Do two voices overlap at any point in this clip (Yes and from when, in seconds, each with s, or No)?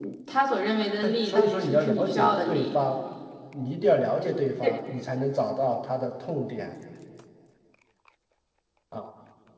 Yes, from 1.0 s